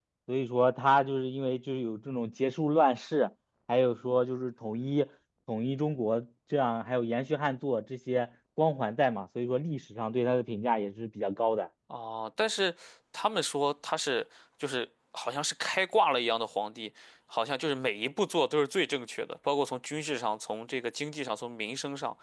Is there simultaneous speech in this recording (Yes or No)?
No